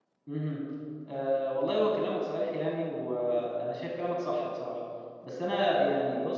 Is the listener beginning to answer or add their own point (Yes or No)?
No